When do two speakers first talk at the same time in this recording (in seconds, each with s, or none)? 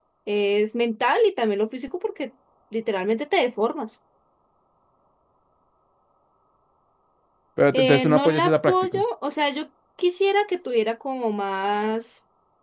7.7 s